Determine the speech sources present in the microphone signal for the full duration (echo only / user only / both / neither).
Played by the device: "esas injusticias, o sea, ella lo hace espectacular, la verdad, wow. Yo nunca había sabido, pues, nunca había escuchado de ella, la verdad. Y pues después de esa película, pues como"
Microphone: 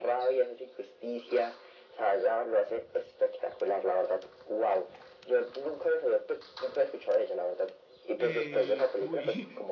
both